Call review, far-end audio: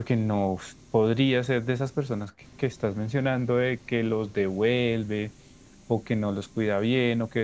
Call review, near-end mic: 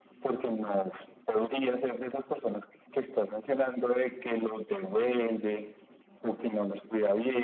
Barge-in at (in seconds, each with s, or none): none